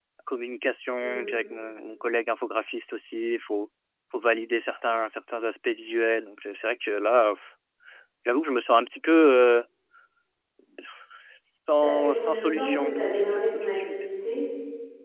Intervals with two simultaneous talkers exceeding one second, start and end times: 11.8-13.9

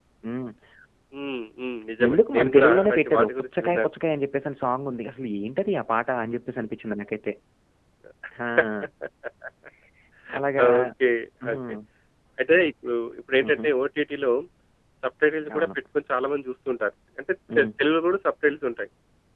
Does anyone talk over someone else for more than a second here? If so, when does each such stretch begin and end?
2.1-3.9

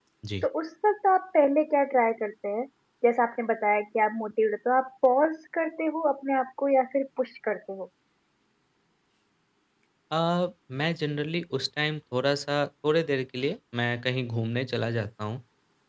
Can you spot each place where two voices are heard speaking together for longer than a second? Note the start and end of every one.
none

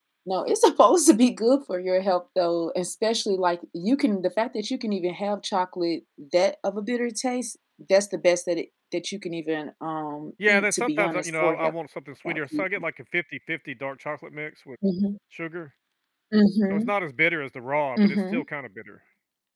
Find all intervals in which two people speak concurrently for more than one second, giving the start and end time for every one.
10.5-11.7

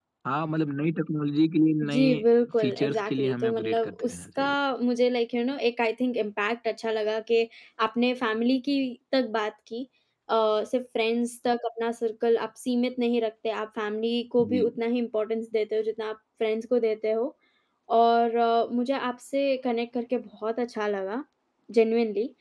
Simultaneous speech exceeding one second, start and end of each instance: 1.9-4.5

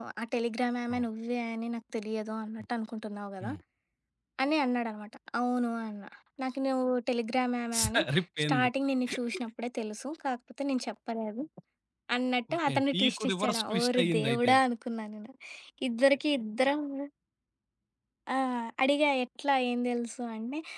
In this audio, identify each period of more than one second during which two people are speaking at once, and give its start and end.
12.5-14.5

